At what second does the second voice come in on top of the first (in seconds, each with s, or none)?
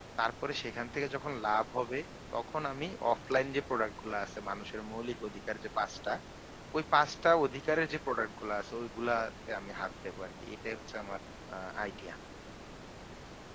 none